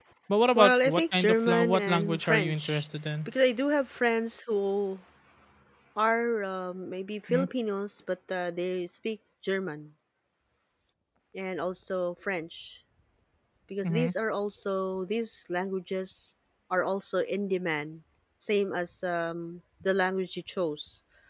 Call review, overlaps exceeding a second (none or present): present